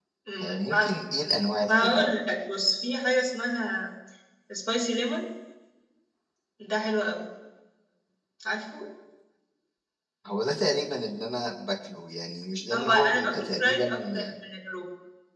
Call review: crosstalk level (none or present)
present